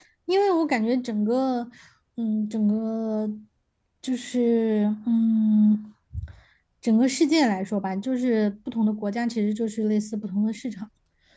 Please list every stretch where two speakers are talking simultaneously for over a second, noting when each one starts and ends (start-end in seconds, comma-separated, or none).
none